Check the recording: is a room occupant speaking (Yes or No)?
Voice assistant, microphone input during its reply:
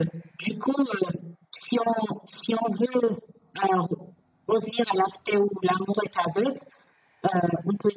No